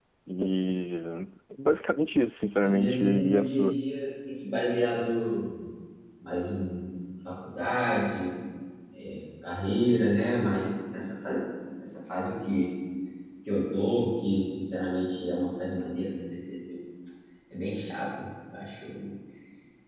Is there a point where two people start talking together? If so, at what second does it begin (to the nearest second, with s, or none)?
3 s